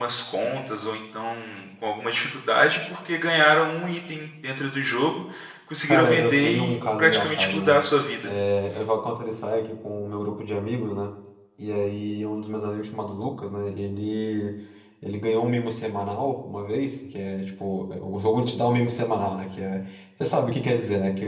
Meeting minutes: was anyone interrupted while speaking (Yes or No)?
Yes